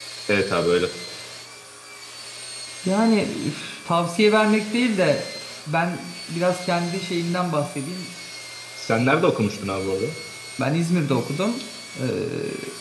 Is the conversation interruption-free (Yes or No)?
Yes